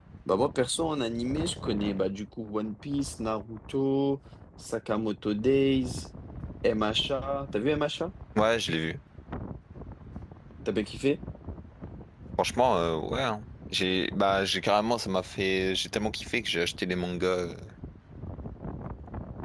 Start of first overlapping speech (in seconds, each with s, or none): none